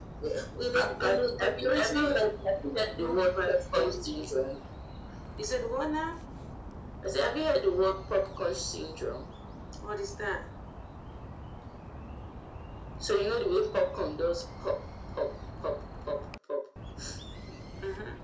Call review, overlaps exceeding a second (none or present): present